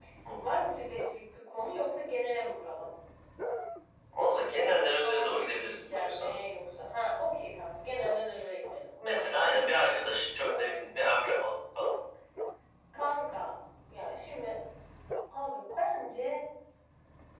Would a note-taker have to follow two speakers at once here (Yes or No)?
Yes